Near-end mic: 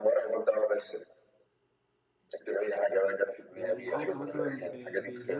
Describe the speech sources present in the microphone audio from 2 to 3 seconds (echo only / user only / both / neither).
echo only